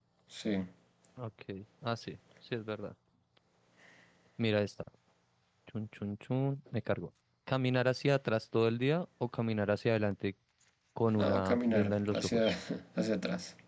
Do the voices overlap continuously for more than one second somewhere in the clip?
Yes, from 11.2 s

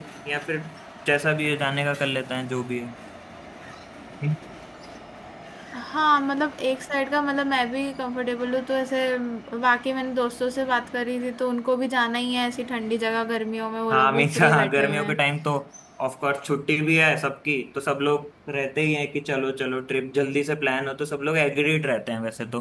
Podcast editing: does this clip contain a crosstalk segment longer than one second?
Yes, from 13.9 s

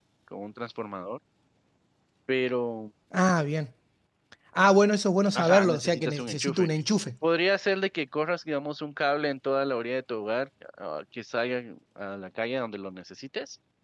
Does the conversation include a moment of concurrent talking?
Yes, from 5.4 s

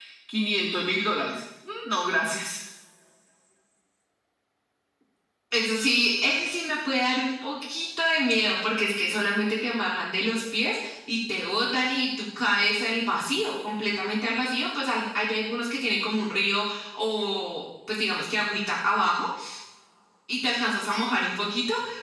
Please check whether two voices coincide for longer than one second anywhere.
No

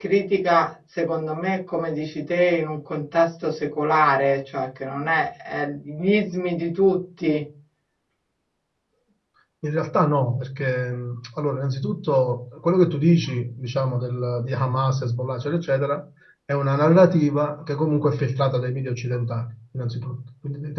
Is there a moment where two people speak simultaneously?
No

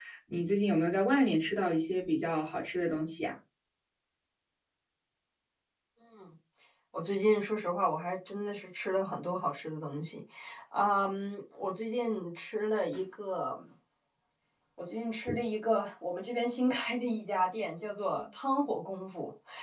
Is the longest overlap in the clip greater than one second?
No

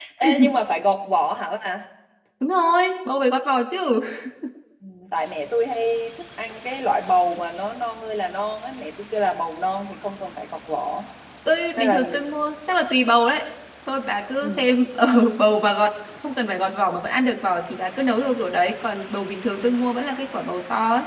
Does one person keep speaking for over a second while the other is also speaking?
No

